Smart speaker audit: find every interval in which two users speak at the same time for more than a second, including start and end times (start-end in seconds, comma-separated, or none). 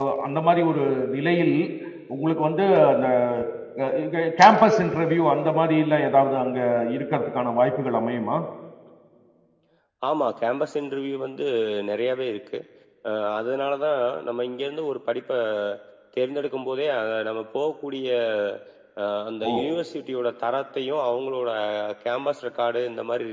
none